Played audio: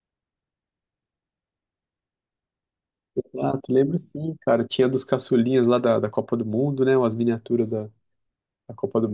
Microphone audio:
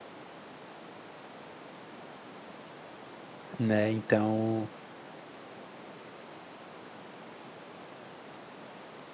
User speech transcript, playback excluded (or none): né? Então,